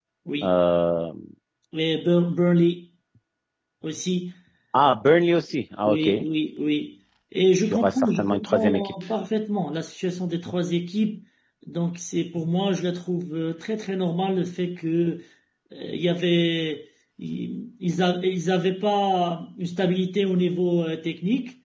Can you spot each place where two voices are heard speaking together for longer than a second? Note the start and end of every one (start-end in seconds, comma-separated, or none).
7.7-8.9